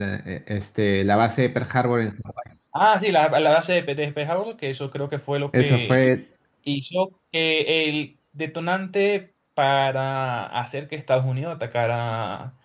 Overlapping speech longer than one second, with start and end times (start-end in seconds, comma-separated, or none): none